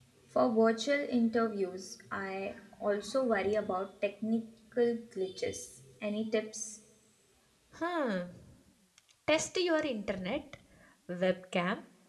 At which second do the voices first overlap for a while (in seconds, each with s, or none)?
none